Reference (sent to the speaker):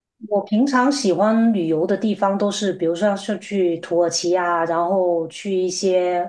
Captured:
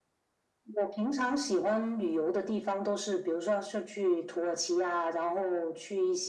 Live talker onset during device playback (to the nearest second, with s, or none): none